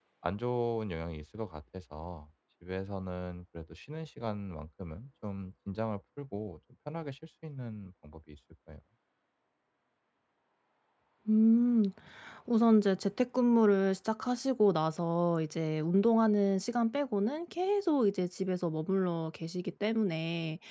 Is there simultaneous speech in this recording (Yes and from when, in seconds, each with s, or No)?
No